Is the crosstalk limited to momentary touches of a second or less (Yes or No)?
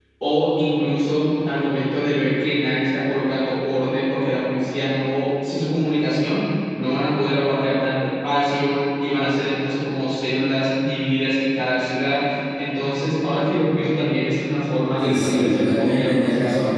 No